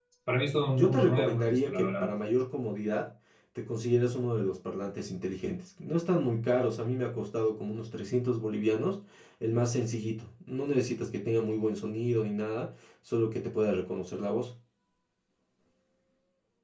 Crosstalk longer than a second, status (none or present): present